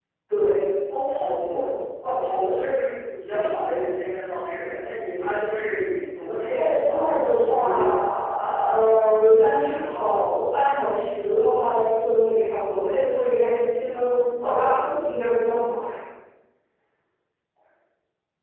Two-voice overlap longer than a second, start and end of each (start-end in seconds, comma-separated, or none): 6.5-7.9